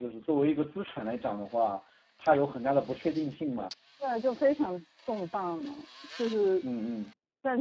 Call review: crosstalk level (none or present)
none